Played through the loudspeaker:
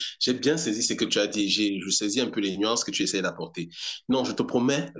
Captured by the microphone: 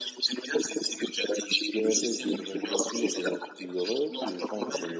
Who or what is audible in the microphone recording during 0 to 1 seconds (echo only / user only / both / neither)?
echo only